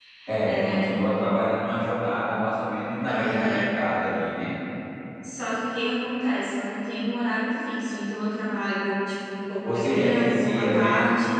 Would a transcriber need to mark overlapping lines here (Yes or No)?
Yes